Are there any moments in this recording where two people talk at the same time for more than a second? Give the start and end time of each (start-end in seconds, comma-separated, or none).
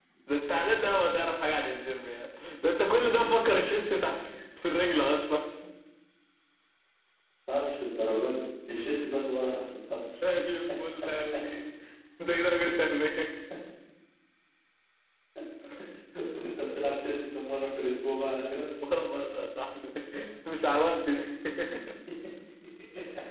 none